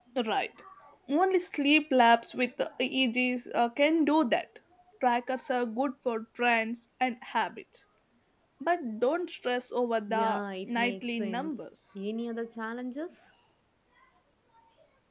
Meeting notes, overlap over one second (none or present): present